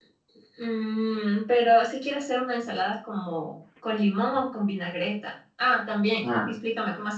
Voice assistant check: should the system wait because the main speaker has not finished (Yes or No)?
Yes